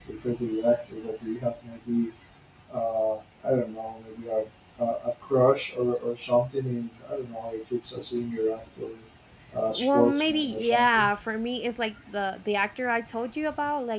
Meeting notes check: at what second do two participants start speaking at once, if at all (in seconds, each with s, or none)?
9.7 s